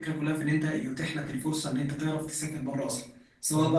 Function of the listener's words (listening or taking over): listening